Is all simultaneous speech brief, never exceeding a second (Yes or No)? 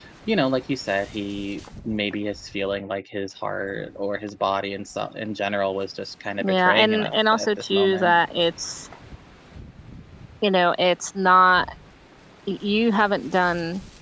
No